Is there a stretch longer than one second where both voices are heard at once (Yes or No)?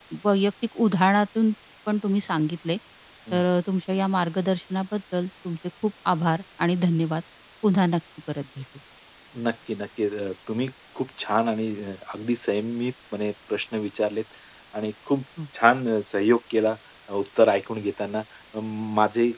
No